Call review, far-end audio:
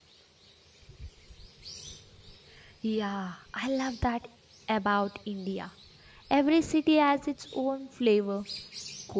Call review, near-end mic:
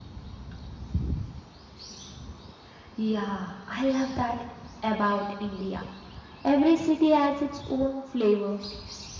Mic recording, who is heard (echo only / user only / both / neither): echo only